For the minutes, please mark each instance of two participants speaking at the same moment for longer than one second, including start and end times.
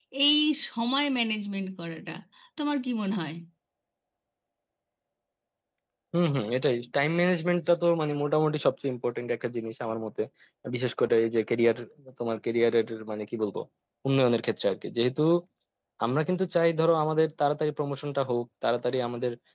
none

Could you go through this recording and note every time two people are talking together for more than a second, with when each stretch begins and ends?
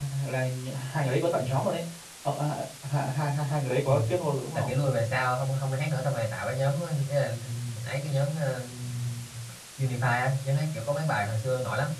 none

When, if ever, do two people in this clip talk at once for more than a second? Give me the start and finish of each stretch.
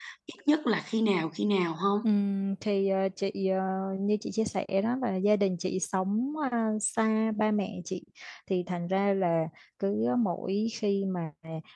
none

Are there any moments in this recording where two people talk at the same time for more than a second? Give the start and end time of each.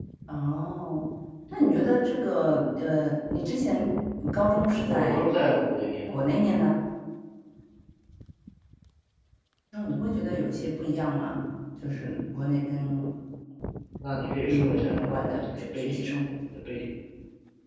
14.4-16.0

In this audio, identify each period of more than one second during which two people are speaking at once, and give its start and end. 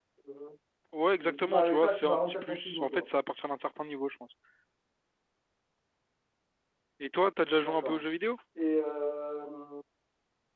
1.2-3.1

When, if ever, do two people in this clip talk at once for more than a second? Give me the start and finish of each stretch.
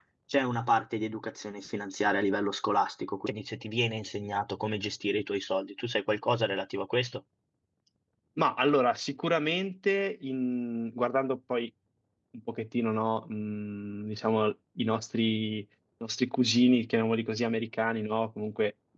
none

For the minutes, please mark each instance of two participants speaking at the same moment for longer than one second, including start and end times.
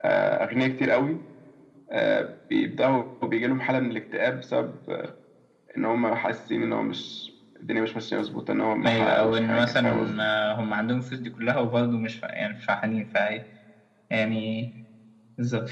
8.8-10.2

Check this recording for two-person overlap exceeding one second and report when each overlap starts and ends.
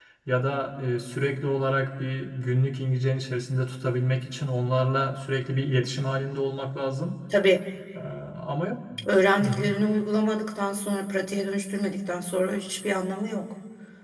none

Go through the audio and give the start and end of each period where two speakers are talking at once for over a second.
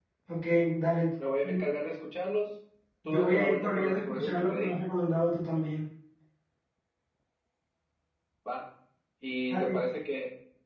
3.1-4.8

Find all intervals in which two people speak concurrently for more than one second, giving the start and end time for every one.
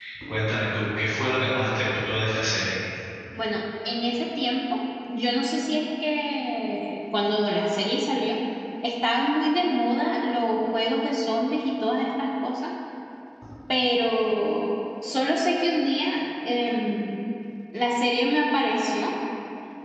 none

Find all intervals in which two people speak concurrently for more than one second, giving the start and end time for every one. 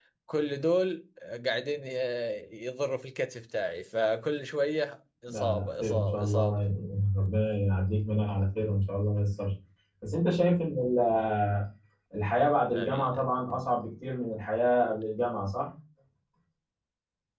5.3-6.6

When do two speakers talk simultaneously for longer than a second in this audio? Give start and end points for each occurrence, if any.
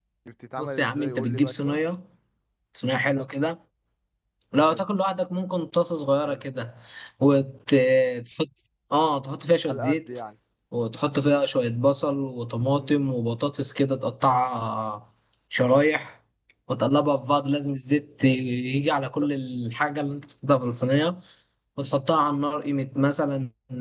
0.6-1.8

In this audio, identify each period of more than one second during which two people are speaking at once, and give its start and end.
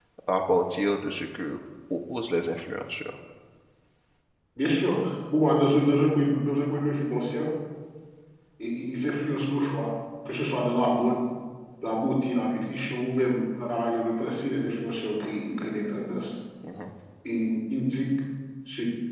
none

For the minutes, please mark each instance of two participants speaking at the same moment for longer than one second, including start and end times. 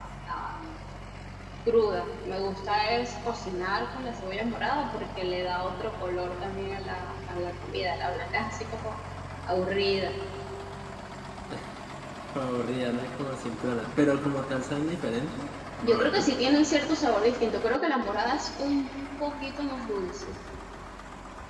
none

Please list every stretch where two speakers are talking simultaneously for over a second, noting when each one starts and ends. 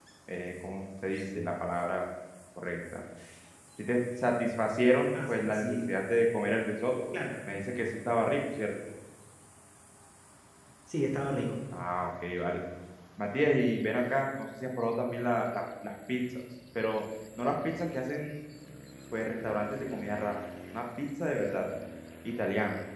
5.3-6.6

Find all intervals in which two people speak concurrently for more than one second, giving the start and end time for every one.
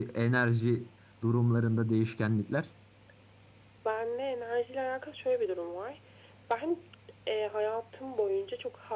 none

